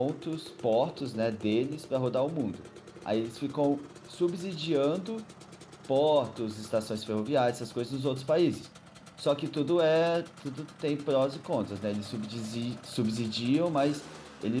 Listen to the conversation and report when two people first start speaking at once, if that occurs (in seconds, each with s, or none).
none